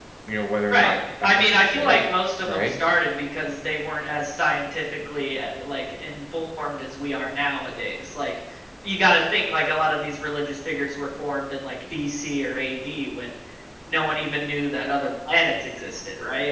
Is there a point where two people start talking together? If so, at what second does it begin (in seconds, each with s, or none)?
0.7 s